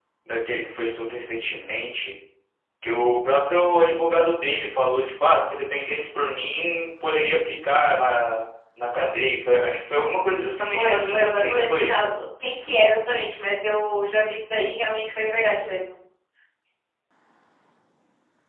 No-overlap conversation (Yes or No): No